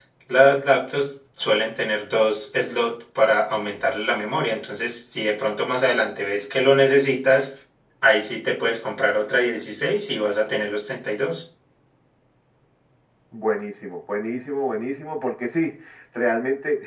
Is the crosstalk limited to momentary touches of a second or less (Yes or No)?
Yes